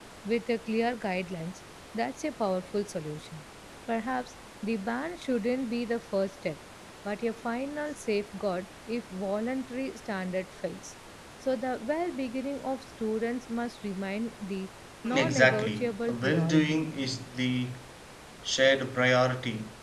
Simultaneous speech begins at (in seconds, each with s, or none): 15.0 s